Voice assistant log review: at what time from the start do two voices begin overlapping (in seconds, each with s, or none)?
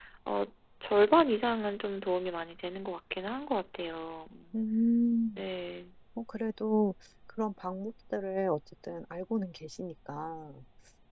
none